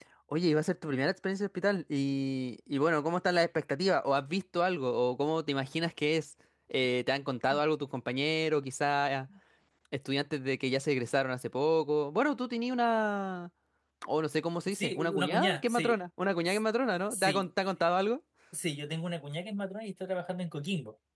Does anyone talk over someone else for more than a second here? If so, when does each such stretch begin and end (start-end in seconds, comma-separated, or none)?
14.7-16.0